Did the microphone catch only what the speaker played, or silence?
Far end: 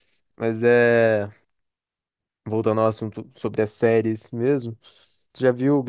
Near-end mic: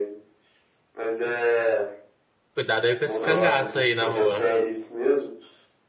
No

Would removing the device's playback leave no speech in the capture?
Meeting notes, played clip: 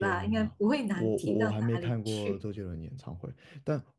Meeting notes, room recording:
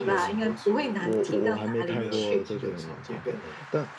No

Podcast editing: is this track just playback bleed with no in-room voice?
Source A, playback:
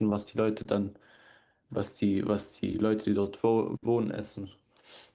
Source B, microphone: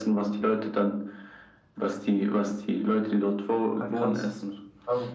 No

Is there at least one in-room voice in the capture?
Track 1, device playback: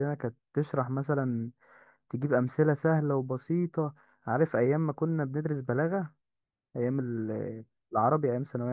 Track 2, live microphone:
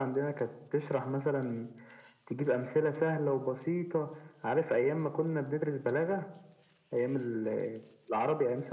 No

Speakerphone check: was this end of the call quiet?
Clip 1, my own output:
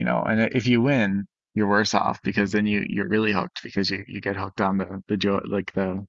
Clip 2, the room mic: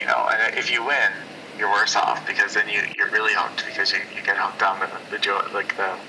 Yes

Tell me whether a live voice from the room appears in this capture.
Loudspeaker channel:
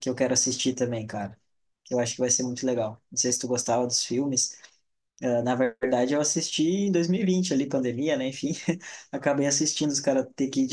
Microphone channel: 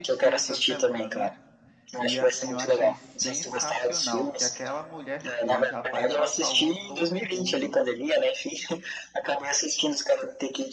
Yes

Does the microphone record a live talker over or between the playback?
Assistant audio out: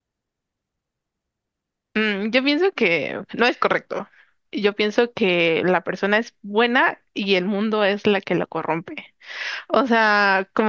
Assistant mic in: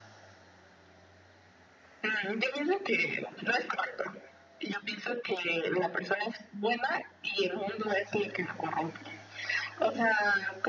No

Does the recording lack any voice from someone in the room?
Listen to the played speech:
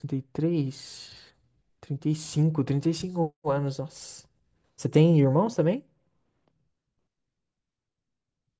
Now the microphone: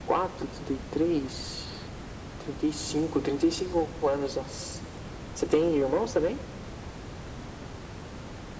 Yes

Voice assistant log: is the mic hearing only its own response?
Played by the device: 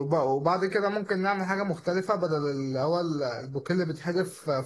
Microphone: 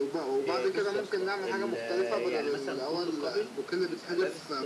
No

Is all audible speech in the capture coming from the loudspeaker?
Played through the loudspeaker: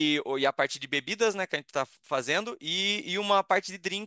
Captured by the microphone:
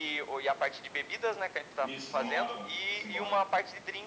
No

